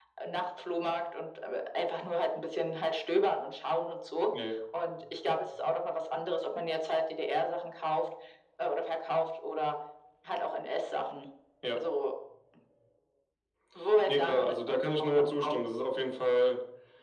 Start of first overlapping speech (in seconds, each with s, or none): 14.1 s